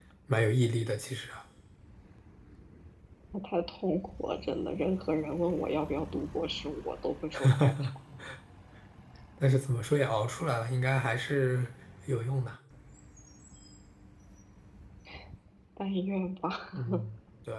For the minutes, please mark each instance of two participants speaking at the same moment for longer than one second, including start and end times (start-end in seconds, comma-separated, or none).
none